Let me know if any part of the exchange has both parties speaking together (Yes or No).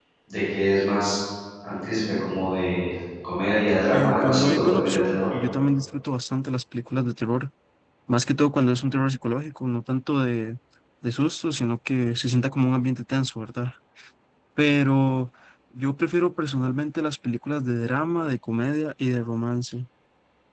Yes